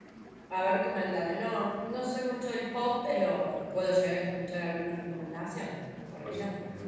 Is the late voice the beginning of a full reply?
Yes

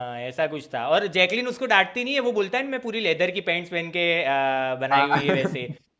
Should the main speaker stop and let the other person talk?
No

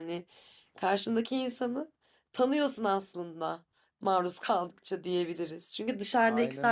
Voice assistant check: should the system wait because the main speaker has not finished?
Yes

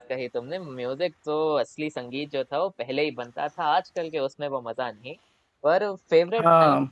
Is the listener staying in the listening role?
Yes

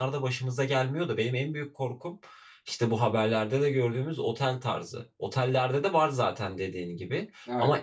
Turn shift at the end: No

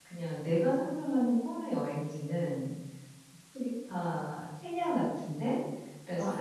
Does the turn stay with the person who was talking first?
Yes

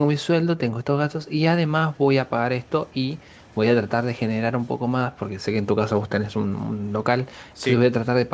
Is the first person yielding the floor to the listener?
No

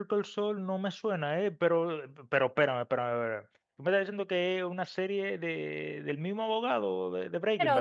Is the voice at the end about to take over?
Yes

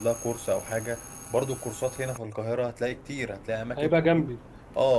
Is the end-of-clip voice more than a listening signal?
No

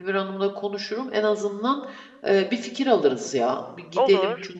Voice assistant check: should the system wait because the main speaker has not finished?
Yes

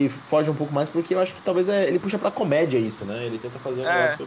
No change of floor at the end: Yes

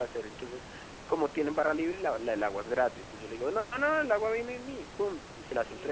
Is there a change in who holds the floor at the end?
No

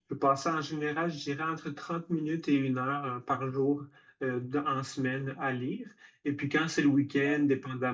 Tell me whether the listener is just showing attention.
Yes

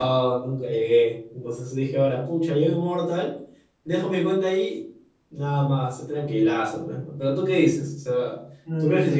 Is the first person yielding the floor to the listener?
Yes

